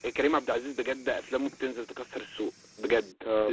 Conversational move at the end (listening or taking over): listening